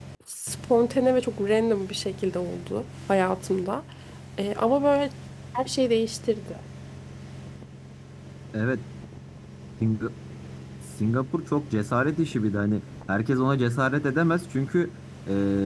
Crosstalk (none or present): none